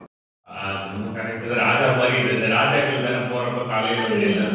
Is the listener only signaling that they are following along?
No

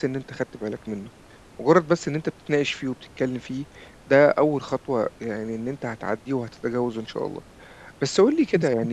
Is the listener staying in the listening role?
Yes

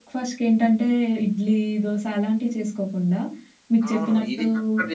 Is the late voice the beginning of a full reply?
Yes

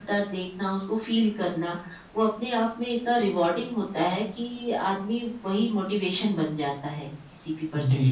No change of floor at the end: No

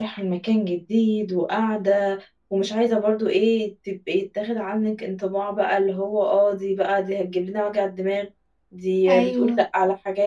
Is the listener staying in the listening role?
Yes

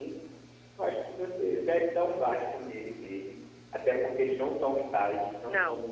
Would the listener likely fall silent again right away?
Yes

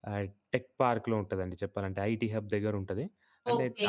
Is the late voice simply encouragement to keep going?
Yes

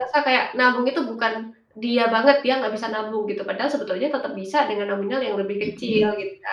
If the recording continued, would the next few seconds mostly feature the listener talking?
Yes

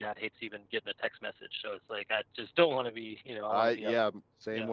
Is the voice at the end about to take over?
Yes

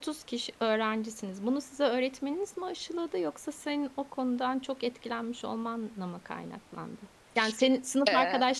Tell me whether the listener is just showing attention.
Yes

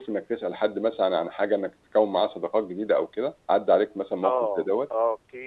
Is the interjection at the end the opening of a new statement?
Yes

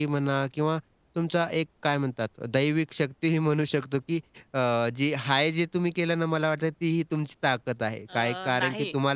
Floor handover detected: No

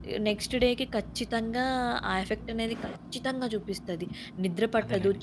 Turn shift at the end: No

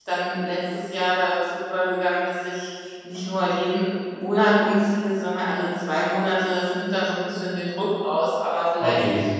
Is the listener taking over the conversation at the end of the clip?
No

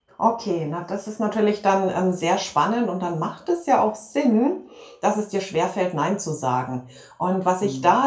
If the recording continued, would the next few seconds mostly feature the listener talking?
No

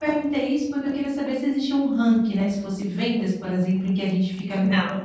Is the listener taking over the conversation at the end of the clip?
No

